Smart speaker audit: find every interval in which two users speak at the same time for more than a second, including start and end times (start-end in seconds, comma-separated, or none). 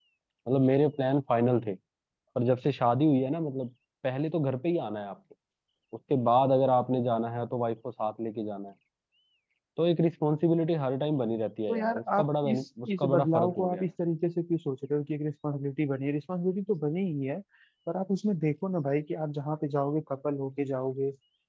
11.7-13.8